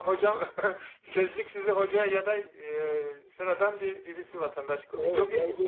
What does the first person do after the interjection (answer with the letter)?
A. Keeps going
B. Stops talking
B